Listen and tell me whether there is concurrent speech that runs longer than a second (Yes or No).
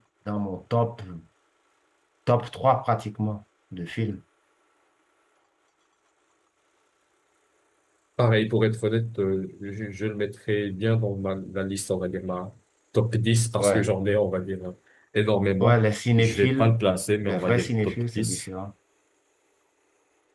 Yes